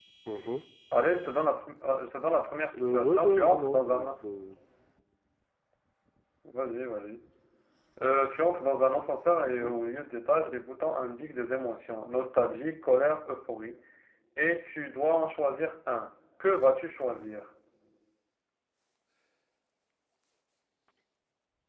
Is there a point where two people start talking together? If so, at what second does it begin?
2.8 s

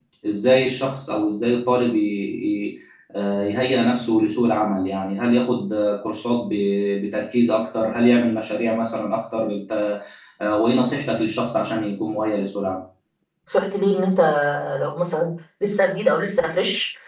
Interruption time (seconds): none

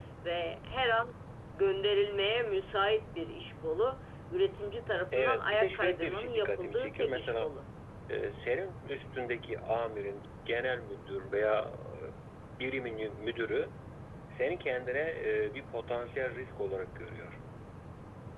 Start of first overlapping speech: 5.1 s

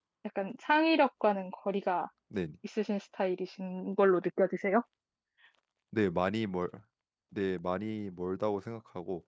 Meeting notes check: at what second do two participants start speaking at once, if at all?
none

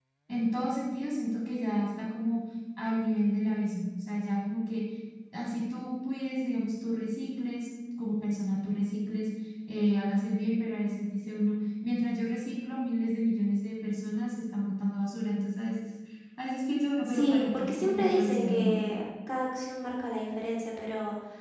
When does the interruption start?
17.1 s

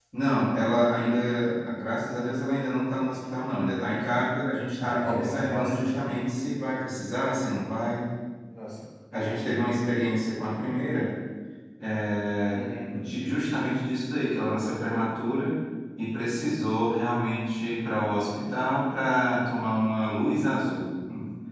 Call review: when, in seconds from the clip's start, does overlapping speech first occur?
4.8 s

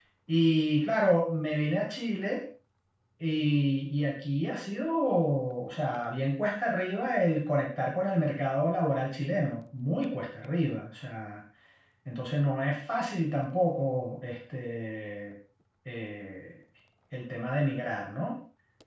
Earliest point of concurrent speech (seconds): none

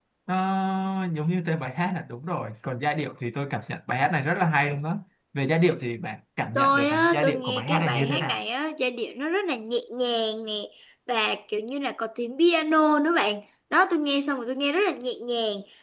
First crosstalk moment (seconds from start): 6.5 s

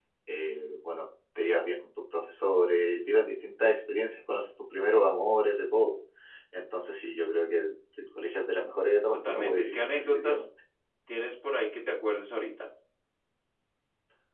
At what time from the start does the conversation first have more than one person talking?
9.2 s

